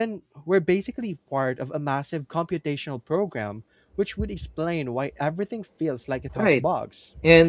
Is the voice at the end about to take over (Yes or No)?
Yes